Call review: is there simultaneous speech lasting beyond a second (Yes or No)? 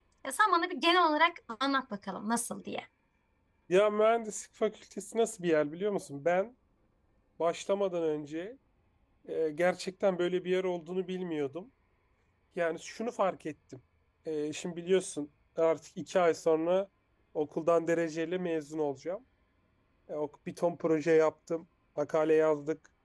No